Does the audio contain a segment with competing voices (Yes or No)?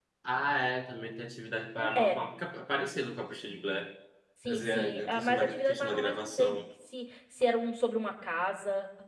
Yes